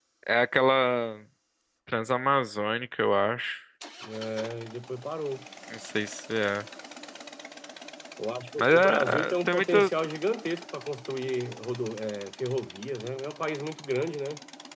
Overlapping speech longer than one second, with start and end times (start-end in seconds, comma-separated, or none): 8.6-9.9